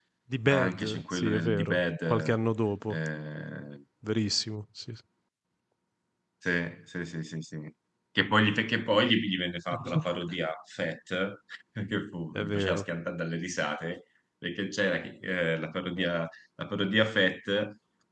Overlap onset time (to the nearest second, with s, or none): 1 s